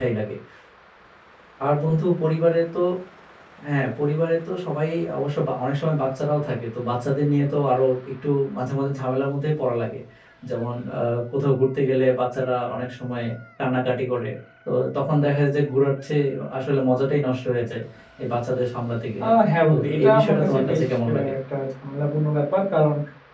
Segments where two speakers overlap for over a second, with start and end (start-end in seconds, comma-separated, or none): 19.7-21.3